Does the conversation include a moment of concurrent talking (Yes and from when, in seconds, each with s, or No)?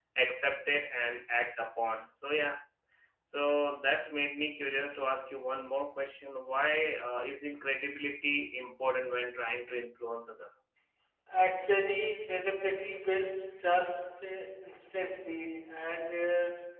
No